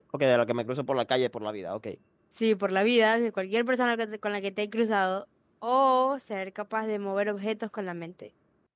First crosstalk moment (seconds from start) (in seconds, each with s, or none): none